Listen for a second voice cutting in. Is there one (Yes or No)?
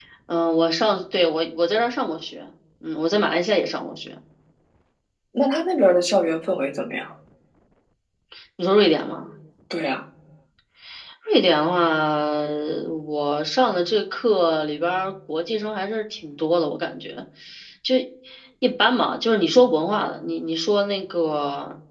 No